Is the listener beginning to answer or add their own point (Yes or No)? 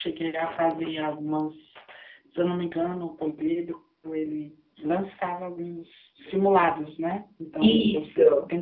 No